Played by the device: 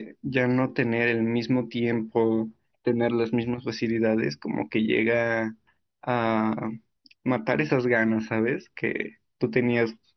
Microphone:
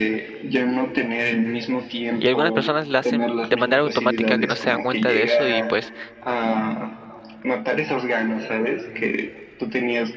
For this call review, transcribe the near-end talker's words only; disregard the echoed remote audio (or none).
Y algunas personas la hacen de manera automática que no se dan cuenta de eso y pues